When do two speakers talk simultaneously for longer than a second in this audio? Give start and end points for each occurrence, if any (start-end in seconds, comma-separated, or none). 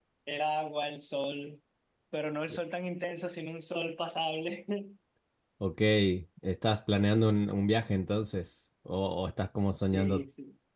none